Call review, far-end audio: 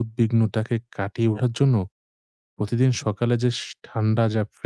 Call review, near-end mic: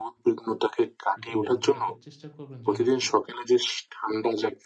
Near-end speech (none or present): present